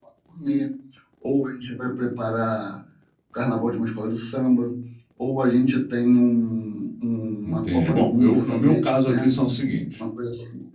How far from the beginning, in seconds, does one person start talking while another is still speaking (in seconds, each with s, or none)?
7.4 s